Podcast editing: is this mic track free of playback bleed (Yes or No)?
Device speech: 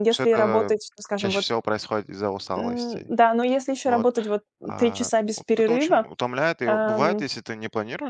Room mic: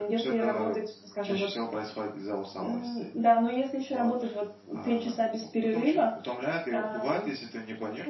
No